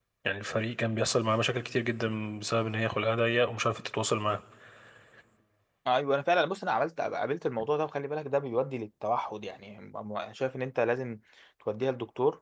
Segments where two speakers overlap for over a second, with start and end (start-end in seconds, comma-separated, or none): none